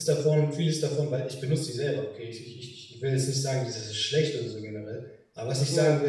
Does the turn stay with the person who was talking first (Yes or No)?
Yes